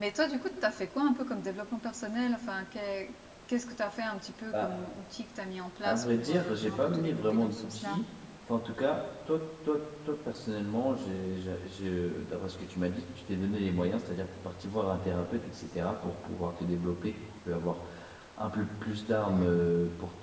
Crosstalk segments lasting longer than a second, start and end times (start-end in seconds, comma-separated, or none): 5.8-8.0